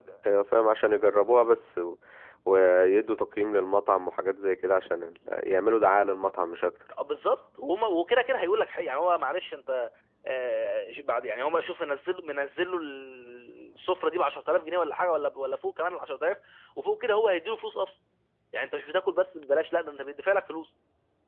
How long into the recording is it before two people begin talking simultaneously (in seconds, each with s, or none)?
none